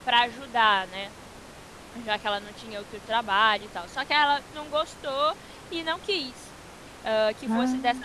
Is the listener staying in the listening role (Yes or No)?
Yes